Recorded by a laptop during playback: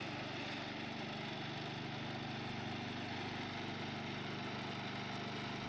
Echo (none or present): none